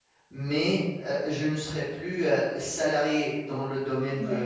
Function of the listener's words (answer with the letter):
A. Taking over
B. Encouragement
B